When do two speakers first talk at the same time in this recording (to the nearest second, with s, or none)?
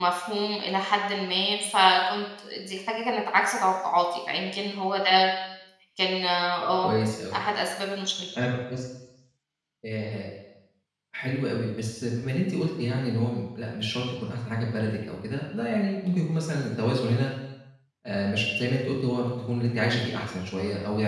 none